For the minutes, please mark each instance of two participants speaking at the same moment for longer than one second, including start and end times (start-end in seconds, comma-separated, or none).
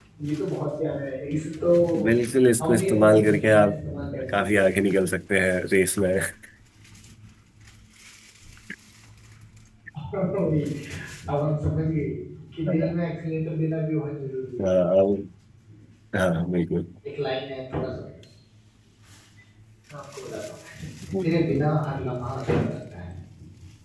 2.6-3.8